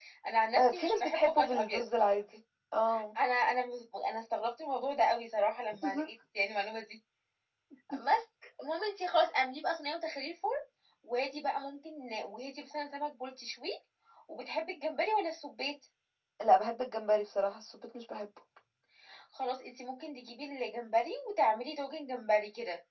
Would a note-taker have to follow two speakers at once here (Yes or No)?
Yes